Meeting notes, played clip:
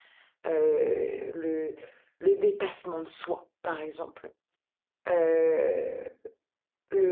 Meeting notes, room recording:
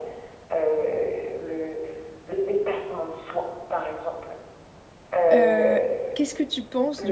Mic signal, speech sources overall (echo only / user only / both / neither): both